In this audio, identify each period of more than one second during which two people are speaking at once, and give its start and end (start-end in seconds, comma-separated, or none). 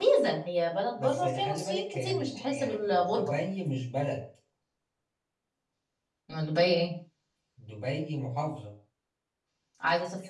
1.0-3.3